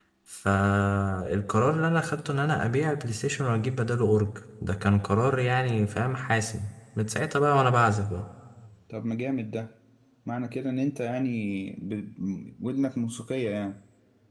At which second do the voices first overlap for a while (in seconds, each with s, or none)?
none